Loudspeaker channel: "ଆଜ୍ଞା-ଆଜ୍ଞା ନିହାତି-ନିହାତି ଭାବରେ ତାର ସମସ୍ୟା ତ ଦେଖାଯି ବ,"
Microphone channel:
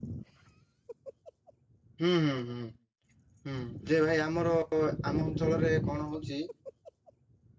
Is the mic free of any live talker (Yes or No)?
No